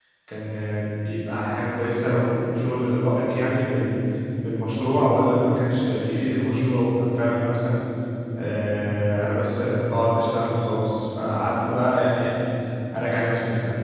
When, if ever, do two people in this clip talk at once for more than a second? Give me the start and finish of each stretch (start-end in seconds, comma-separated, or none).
none